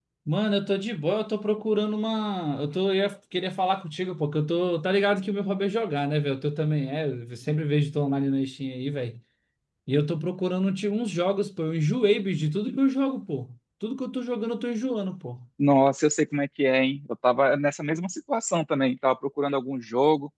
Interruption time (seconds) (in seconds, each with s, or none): none